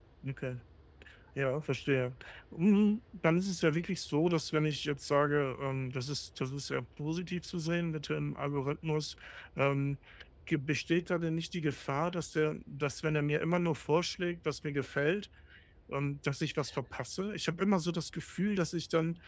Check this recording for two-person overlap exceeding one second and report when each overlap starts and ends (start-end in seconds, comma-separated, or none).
none